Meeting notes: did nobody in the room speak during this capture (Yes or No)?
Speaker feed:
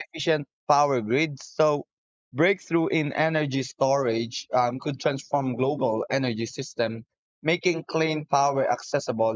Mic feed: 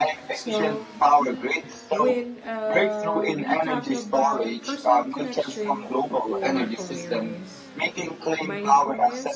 No